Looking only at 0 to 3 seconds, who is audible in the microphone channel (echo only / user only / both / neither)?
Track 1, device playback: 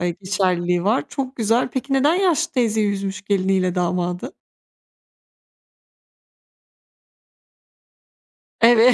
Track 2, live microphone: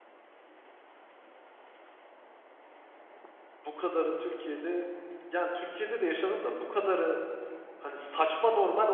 neither